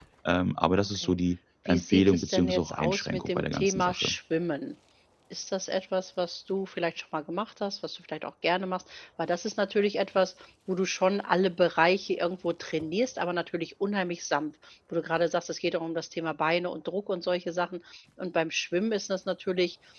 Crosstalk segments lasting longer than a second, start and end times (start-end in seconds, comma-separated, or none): 1.7-4.2